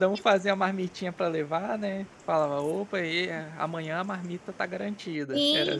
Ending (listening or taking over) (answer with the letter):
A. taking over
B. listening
A